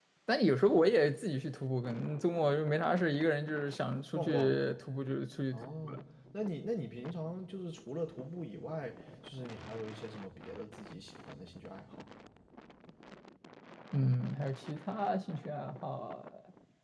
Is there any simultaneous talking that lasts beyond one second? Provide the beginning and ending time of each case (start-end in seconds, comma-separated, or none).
none